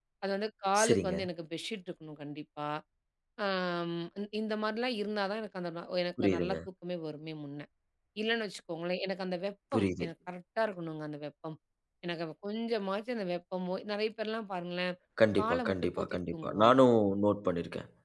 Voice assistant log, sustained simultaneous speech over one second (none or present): present